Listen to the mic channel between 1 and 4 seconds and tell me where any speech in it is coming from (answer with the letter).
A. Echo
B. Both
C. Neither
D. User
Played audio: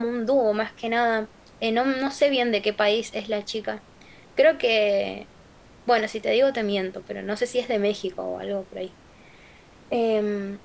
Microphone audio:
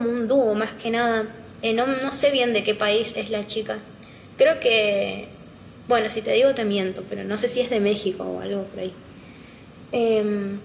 A